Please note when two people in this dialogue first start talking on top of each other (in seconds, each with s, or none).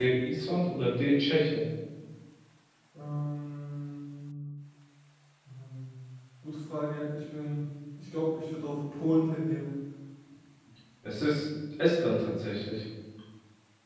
none